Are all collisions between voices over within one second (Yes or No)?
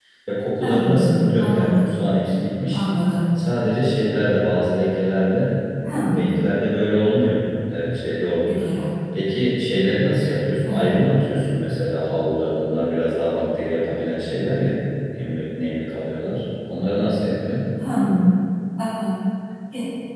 No